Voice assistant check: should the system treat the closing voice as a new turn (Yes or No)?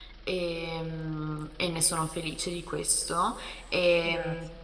No